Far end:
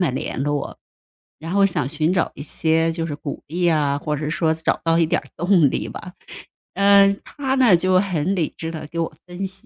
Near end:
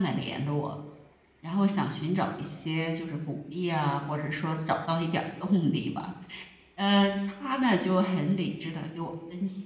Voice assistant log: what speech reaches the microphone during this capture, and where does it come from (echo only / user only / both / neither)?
echo only